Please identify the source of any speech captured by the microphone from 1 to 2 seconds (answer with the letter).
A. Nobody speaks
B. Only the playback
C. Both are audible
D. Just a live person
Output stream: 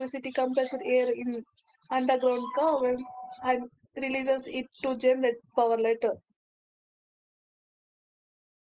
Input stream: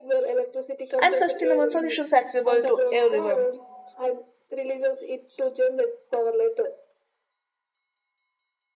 C